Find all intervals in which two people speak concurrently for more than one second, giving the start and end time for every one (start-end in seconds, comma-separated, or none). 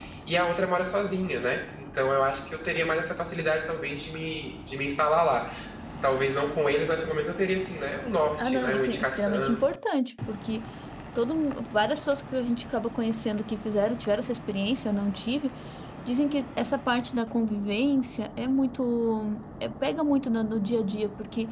8.4-9.7